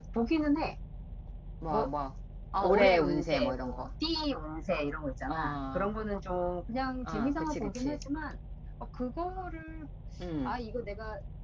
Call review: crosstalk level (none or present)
present